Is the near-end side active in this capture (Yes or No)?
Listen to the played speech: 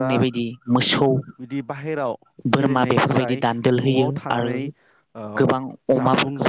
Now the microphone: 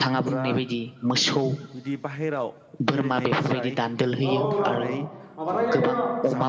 Yes